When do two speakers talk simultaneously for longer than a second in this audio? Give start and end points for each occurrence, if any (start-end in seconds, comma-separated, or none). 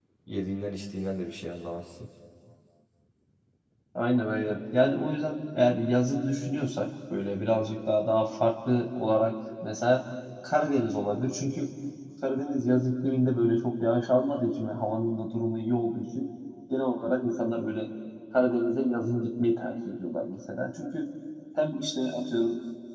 none